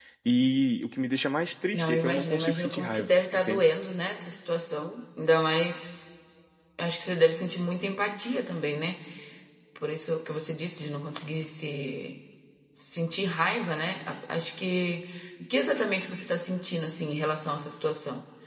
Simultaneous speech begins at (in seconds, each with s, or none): 1.7 s